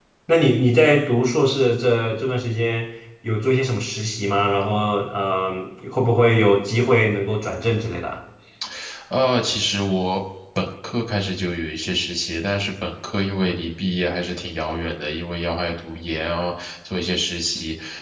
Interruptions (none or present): none